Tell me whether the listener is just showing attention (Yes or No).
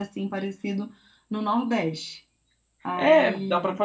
No